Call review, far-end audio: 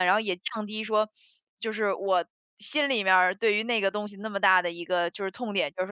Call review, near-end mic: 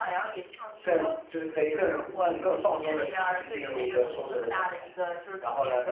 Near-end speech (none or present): present